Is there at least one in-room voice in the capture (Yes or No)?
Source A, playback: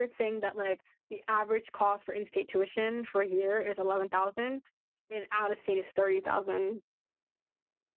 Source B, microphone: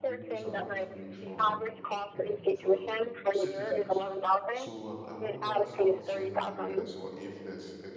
Yes